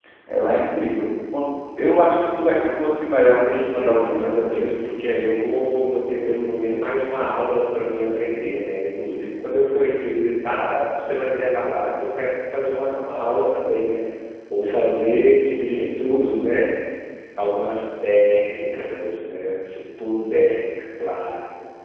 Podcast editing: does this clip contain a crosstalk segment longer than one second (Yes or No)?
Yes